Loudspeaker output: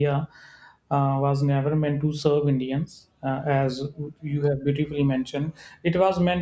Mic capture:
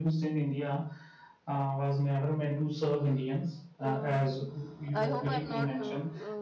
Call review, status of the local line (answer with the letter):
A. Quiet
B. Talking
B